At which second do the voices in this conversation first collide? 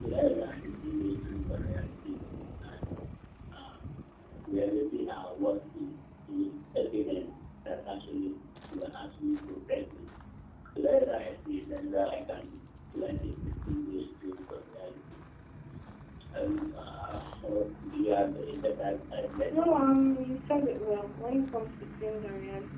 none

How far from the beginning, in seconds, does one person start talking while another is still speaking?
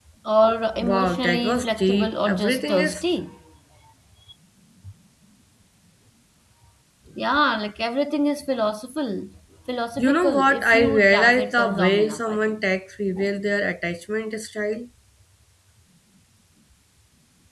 1 s

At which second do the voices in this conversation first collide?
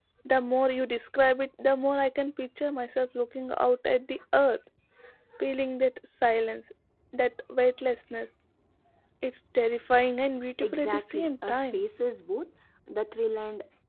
11 s

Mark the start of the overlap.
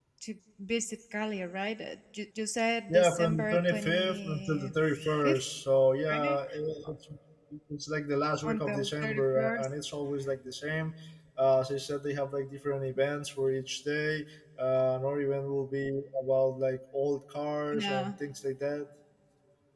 3 s

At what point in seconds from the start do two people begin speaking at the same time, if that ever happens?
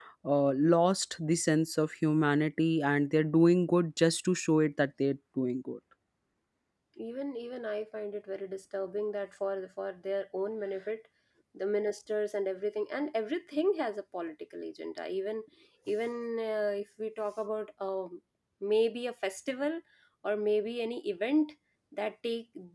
none

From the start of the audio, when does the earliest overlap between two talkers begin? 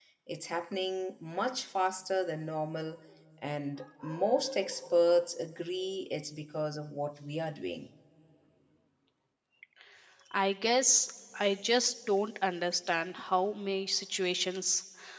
none

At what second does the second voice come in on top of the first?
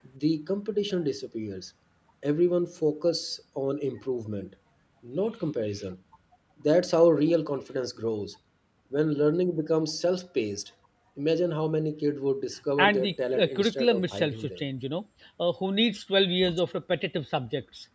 13 s

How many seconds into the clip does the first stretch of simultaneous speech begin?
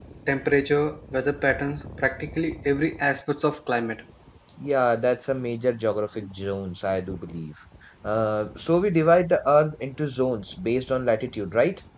none

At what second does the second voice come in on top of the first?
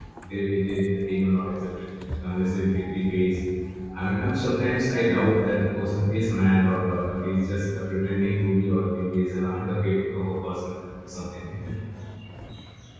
none

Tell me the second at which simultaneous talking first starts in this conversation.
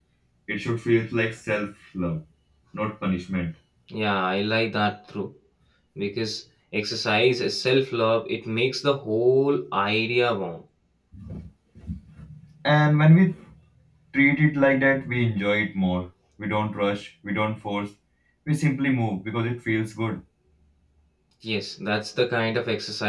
none

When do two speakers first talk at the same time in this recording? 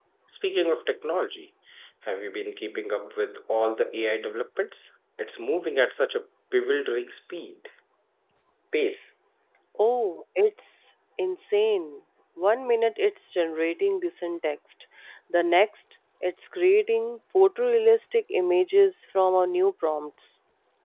none

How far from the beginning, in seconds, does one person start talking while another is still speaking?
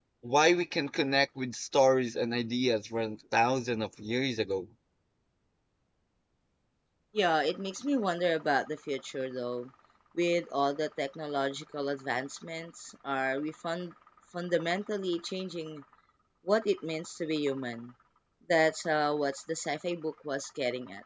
none

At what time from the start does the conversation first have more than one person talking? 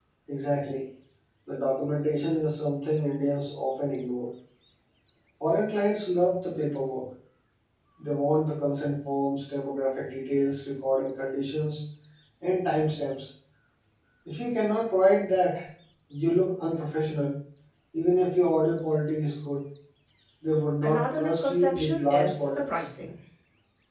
21 s

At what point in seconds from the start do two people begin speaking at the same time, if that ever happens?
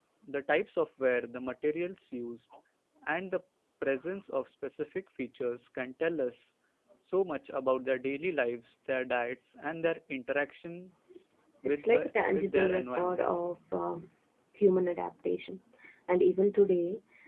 12 s

